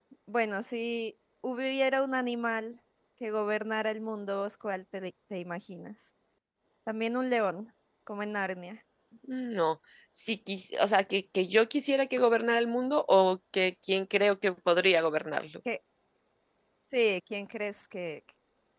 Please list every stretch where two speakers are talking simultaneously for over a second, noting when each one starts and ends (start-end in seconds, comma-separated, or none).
none